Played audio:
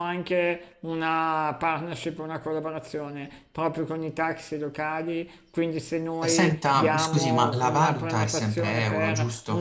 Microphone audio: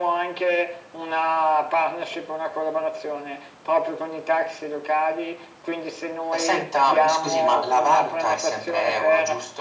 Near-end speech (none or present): none